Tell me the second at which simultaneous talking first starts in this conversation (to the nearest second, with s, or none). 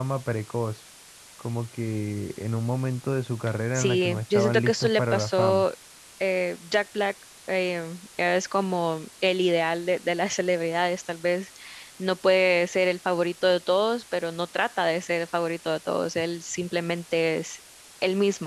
4 s